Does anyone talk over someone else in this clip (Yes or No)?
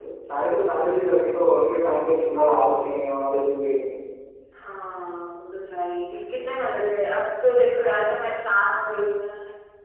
No